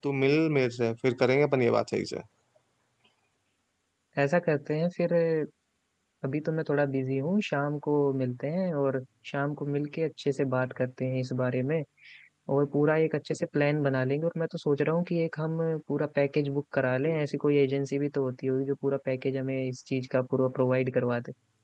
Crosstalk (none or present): none